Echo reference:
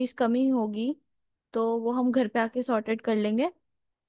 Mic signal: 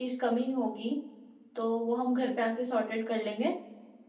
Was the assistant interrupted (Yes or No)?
No